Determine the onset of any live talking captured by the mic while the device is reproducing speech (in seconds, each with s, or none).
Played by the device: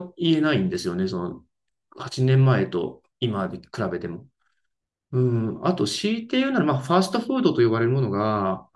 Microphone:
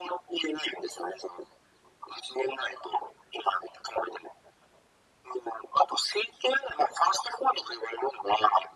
none